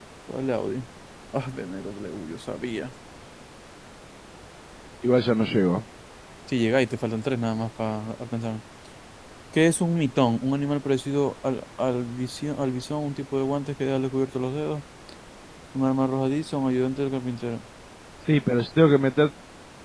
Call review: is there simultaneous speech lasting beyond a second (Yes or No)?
No